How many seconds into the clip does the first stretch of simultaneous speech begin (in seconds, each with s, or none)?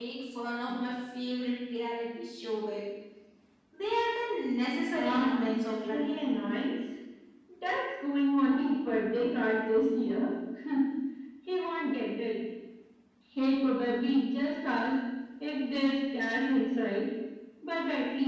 4.9 s